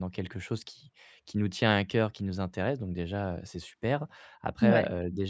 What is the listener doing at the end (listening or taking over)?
listening